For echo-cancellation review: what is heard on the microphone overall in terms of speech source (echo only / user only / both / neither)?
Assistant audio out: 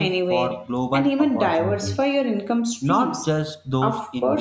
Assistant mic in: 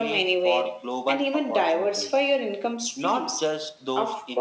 echo only